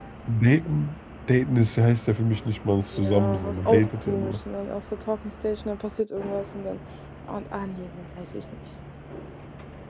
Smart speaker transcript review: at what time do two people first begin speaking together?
2.9 s

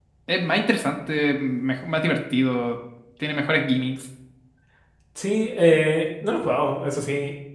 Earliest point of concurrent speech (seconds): none

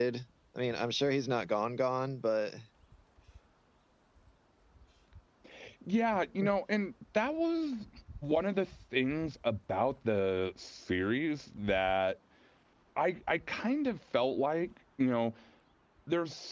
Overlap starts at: none

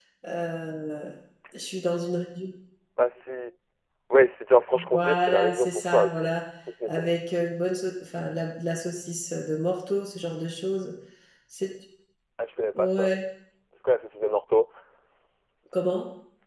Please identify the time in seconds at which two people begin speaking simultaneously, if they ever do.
4.9 s

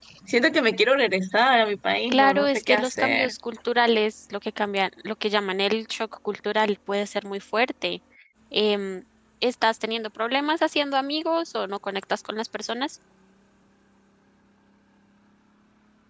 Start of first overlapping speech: 2.1 s

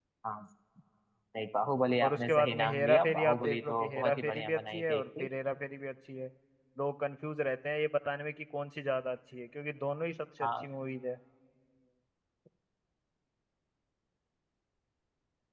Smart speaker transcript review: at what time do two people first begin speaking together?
2.0 s

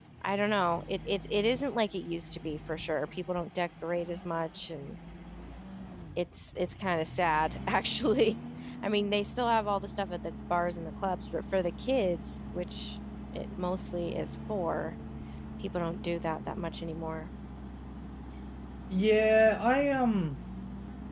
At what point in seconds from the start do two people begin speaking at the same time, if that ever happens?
none

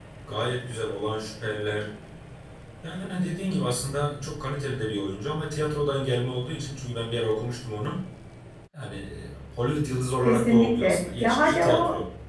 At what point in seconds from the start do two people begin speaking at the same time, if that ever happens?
10.2 s

